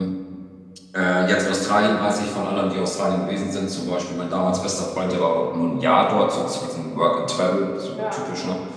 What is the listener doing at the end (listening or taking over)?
listening